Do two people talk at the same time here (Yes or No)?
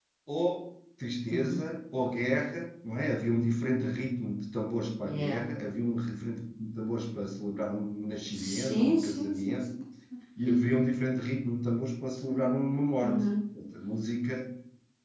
Yes